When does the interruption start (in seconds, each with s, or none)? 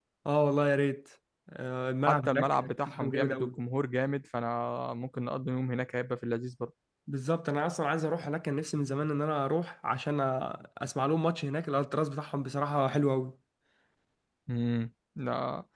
2.0 s